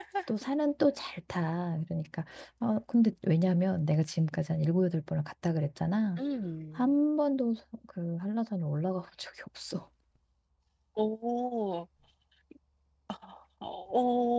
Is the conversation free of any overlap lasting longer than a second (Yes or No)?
Yes